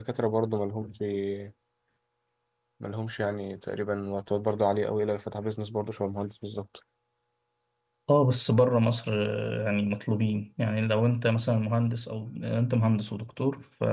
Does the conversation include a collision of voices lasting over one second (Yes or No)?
No